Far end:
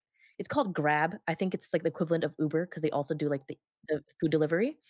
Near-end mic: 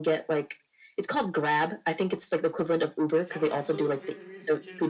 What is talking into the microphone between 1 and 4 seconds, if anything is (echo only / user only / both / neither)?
both